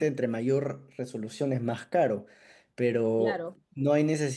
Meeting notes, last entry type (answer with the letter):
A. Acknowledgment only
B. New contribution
A